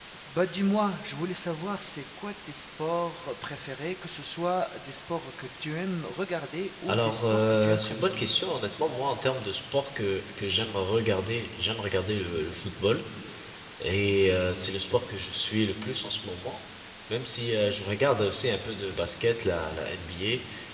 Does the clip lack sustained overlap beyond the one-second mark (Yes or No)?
No